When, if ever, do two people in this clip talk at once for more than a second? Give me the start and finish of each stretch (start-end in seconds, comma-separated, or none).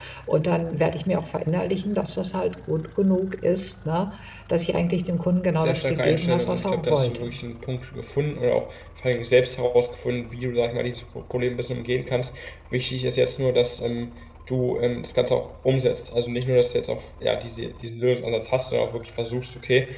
5.6-7.3